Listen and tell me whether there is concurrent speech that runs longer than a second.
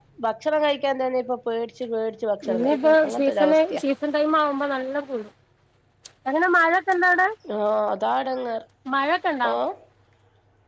Yes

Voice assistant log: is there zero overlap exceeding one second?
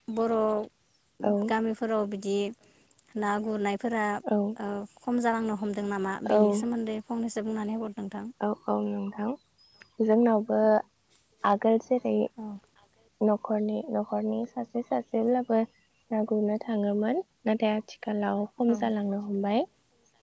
Yes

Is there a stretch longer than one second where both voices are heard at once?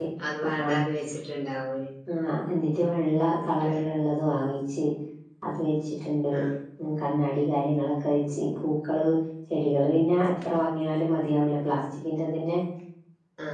No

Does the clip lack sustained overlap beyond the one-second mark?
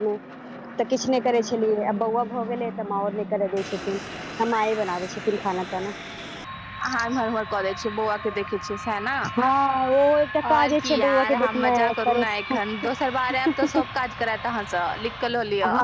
No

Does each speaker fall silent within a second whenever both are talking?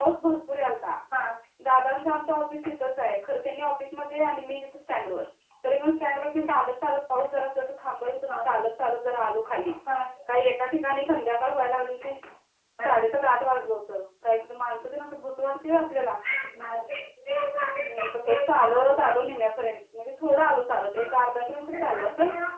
No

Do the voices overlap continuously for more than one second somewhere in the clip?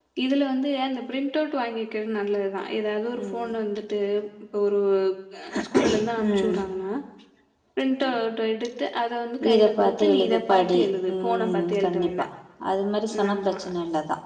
Yes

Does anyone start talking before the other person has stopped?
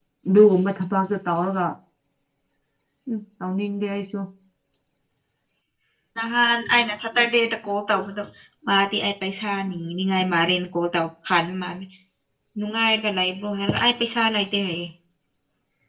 No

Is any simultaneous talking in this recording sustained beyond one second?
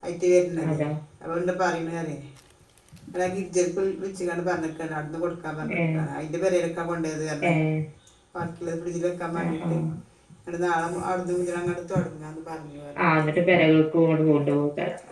No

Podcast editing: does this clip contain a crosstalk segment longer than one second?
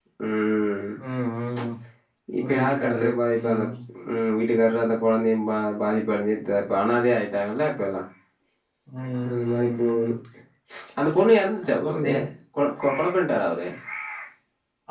Yes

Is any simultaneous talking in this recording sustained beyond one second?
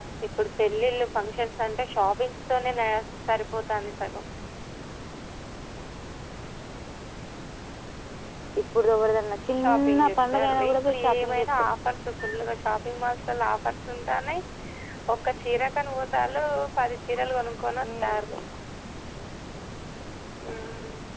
Yes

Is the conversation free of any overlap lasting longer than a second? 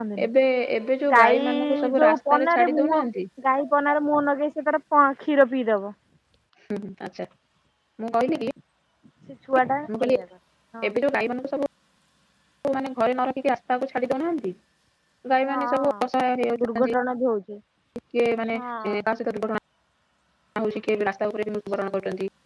No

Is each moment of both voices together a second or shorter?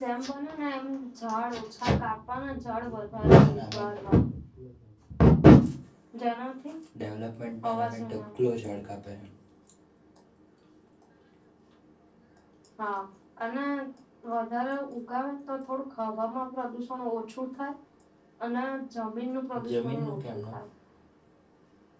No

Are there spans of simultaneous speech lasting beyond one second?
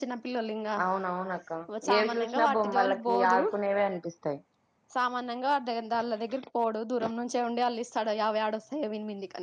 Yes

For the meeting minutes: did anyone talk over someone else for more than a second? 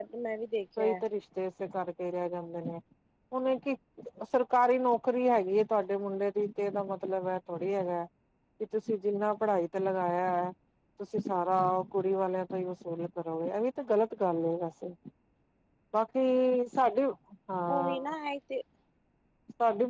No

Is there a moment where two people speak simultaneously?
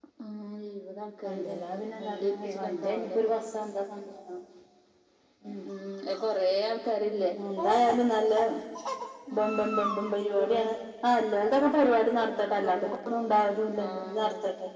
Yes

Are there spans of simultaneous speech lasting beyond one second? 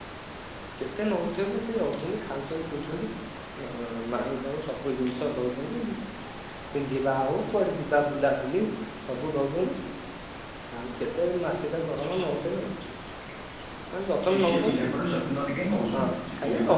No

